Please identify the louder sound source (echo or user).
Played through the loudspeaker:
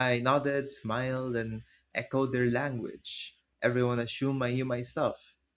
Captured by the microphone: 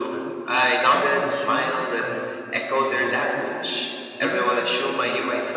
echo